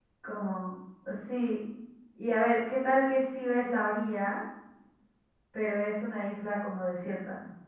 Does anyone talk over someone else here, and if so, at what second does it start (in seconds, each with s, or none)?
none